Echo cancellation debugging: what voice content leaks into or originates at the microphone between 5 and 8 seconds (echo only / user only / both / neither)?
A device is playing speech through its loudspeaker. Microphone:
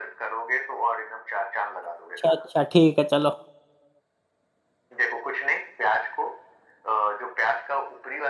echo only